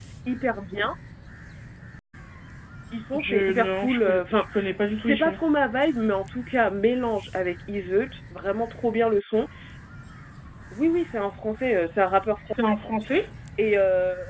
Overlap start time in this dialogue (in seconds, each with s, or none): 3.2 s